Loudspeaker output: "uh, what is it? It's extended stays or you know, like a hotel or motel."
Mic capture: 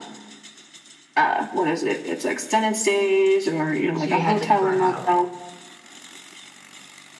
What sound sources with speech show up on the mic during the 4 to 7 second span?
both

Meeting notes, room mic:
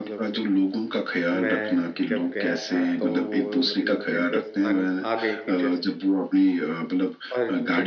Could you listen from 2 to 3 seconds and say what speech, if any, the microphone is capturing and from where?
both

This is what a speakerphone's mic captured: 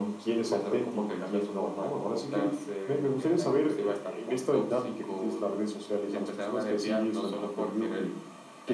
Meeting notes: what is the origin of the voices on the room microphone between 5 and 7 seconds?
echo only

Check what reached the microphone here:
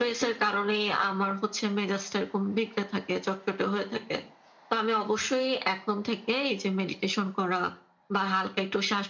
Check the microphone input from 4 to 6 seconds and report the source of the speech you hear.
echo only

